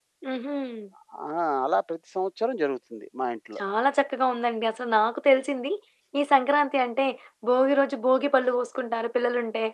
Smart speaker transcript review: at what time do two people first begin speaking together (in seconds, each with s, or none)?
none